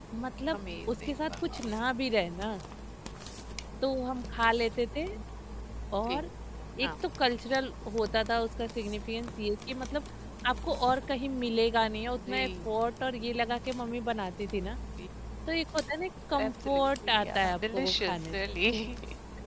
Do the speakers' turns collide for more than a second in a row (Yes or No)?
Yes